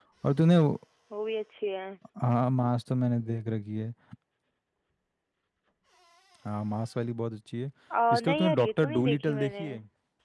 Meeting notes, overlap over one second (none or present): present